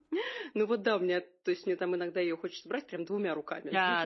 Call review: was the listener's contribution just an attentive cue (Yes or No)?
Yes